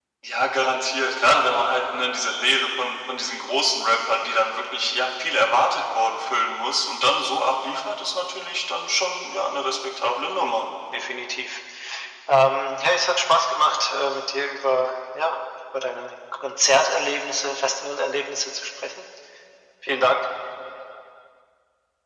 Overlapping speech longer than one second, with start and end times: none

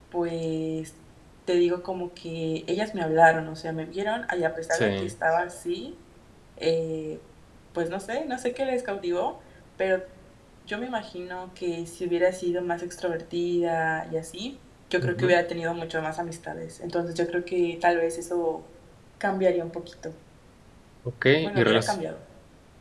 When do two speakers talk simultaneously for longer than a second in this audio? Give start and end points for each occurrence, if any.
none

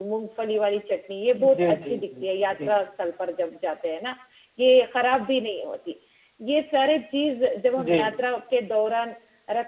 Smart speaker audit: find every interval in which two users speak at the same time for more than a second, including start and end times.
1.4-2.8

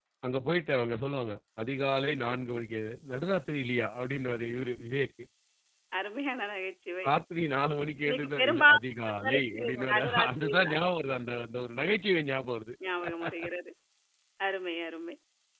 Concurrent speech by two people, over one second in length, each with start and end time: 8.1-10.8

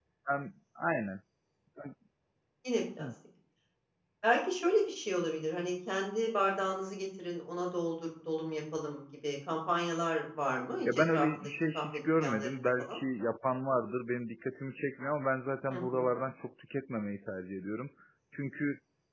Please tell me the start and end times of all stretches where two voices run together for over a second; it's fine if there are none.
10.8-13.0

